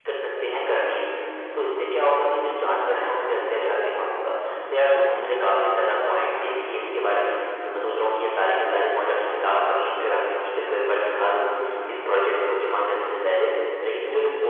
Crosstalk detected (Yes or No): No